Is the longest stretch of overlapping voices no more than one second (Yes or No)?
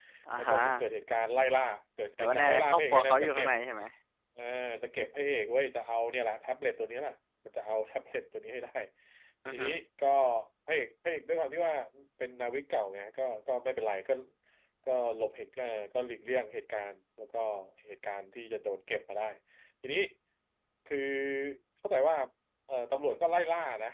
No